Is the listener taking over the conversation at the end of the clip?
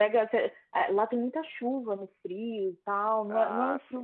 No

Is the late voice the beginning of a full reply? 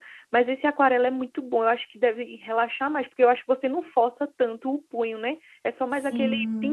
Yes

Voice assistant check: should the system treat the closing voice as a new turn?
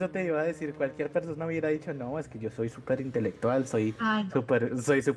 No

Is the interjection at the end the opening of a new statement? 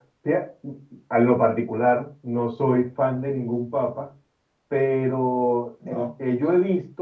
No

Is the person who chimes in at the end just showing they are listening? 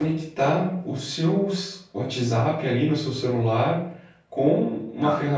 Yes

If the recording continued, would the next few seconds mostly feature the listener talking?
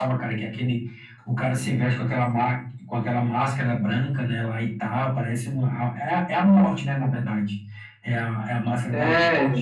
Yes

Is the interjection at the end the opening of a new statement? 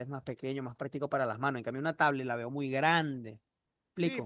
Yes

